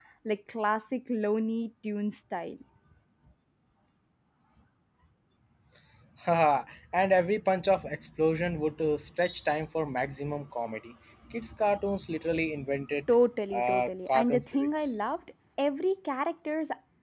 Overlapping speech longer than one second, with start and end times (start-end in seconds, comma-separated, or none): 13.5-14.9